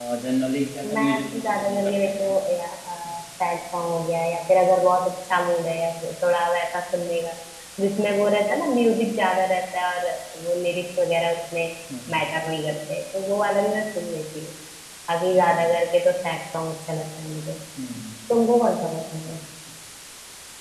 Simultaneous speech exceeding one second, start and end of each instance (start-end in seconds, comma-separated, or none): 0.8-2.3